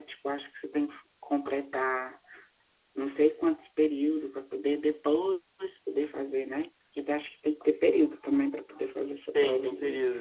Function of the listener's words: taking over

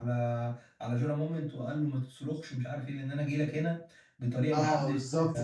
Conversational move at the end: taking over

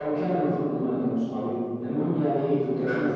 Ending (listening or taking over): listening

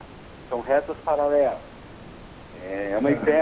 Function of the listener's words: listening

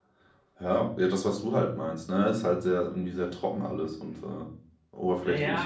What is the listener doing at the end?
taking over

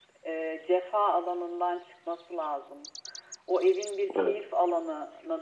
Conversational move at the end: listening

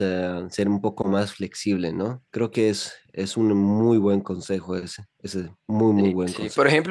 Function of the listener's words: taking over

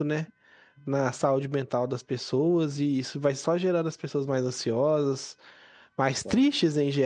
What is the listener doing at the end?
listening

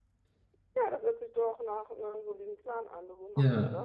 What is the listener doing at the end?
taking over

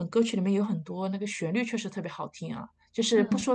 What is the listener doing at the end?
listening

